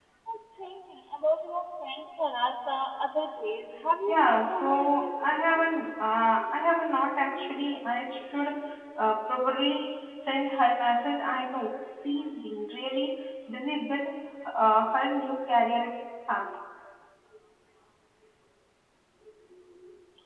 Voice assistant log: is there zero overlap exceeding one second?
No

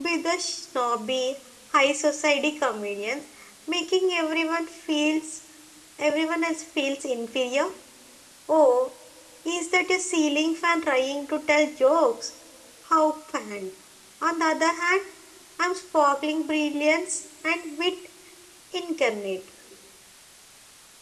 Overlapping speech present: No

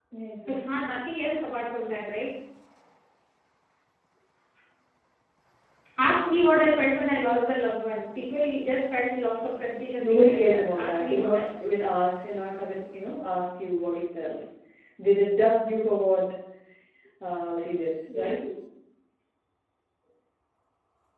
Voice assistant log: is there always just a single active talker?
No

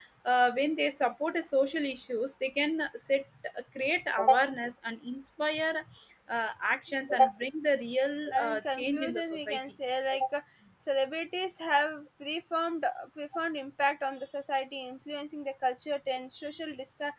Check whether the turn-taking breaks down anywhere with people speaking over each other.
Yes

